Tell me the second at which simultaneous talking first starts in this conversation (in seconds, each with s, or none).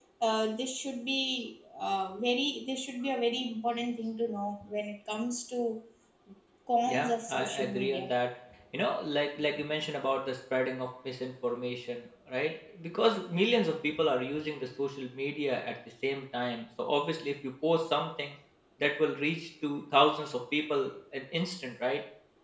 6.9 s